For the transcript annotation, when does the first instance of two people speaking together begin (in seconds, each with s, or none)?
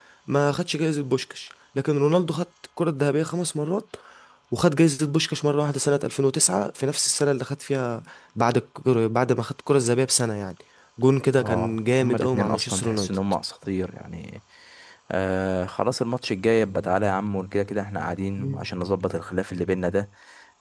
11.4 s